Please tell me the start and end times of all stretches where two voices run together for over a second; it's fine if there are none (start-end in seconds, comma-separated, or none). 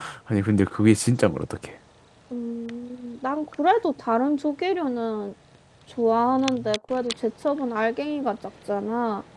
none